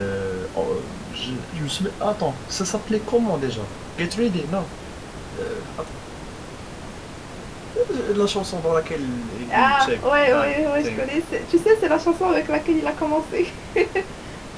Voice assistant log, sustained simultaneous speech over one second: present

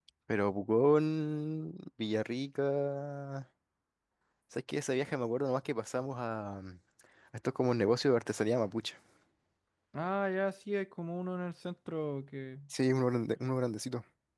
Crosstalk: none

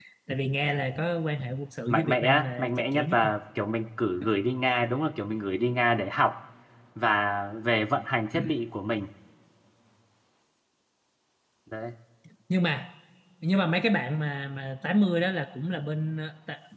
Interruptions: present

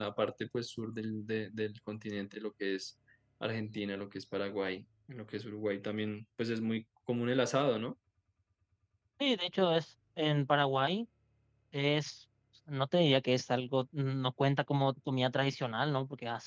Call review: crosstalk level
none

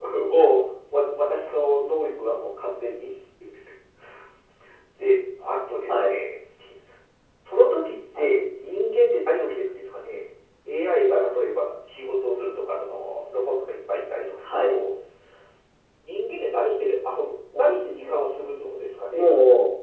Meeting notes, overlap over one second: none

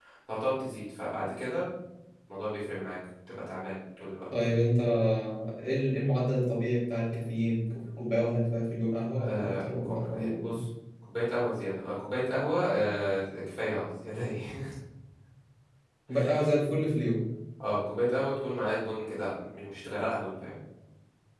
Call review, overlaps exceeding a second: present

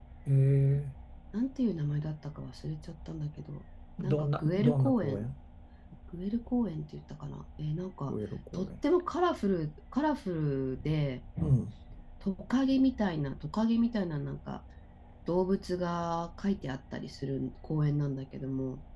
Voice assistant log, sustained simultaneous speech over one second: present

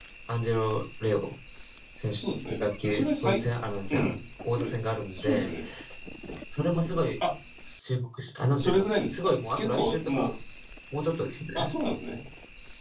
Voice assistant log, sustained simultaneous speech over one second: present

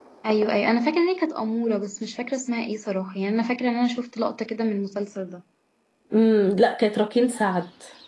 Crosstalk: none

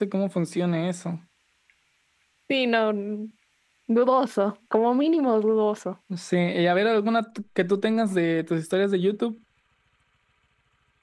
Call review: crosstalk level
none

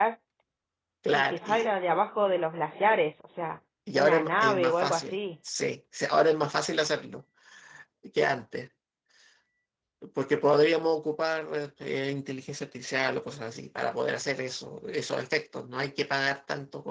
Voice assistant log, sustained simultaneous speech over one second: present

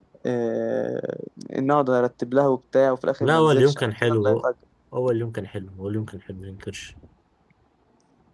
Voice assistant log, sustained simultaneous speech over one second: present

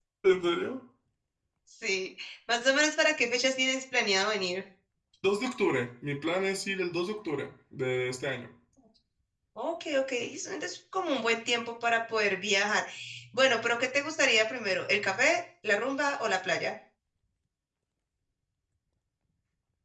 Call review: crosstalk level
none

